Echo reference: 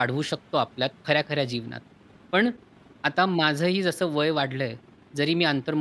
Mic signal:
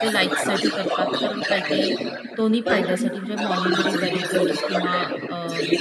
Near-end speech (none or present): present